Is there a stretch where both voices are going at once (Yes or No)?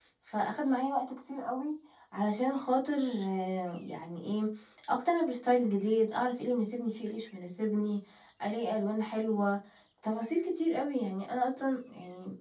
No